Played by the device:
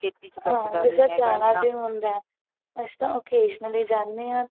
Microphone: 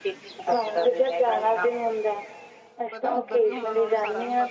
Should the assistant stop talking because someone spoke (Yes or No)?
Yes